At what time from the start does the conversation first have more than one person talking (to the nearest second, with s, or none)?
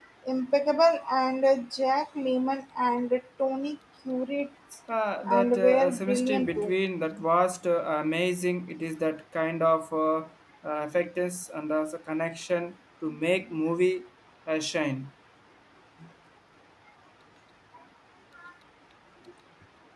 5 s